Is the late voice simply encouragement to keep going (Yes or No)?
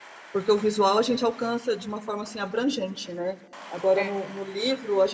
Yes